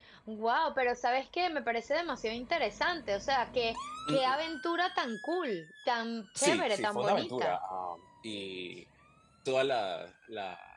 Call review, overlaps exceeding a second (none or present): present